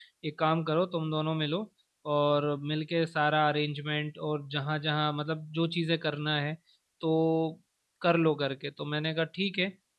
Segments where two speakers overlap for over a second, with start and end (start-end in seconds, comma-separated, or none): none